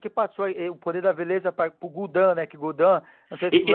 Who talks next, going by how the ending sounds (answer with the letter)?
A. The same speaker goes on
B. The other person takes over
B